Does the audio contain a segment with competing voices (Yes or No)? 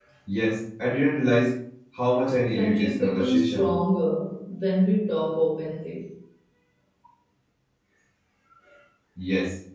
Yes